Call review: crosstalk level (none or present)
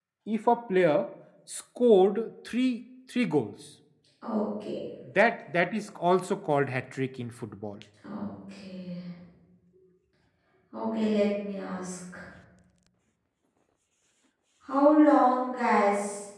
none